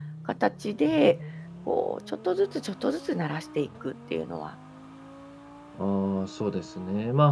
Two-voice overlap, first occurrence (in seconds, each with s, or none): none